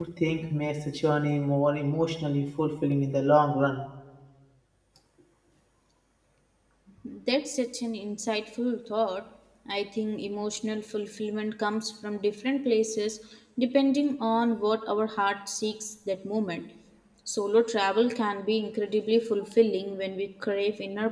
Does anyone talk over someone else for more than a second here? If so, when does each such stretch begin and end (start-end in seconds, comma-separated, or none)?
none